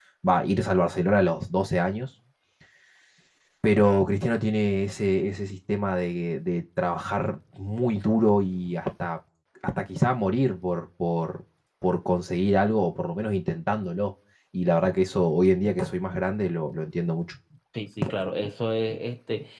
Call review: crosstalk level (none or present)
none